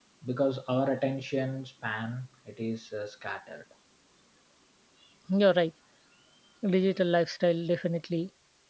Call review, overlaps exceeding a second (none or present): none